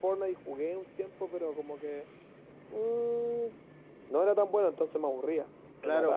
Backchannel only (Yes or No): No